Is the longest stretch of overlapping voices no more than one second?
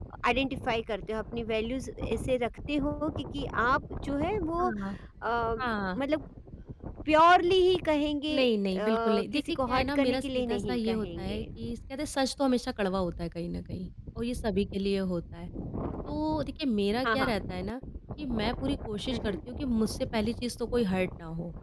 No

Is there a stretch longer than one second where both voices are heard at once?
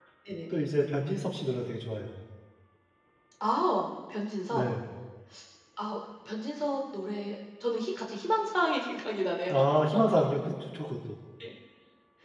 No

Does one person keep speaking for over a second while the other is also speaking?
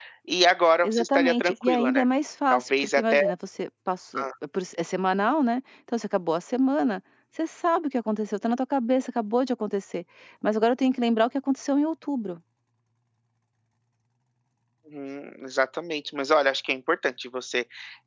Yes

